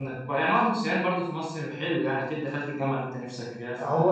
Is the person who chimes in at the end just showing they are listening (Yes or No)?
No